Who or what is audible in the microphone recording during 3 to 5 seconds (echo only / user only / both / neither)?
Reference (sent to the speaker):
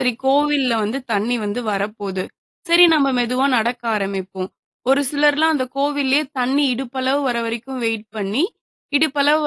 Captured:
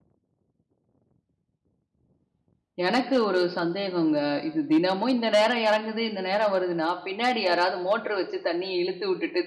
user only